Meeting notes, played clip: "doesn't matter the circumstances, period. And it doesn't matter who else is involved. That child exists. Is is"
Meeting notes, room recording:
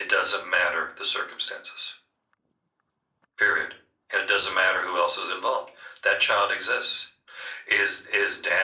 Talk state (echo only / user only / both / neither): echo only